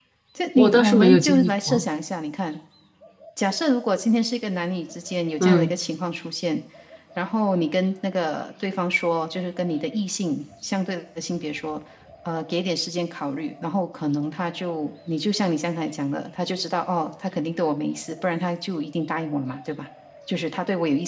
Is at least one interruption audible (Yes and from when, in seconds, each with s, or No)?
Yes, from 0.6 s